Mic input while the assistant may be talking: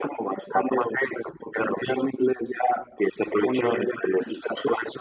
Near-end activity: none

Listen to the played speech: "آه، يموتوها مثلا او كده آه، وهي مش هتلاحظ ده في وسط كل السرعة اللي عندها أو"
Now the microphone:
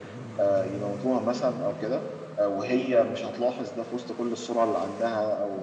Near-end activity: none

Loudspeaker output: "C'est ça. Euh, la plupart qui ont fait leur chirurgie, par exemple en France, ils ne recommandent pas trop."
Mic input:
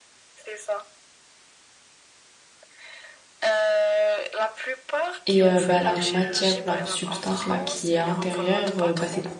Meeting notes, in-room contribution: present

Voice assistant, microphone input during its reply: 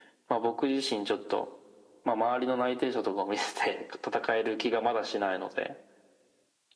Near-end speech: none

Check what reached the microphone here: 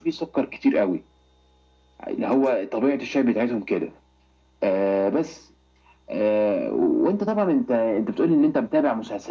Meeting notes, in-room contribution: none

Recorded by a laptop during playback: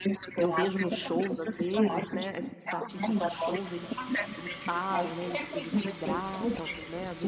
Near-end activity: present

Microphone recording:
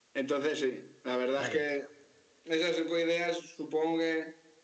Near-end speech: present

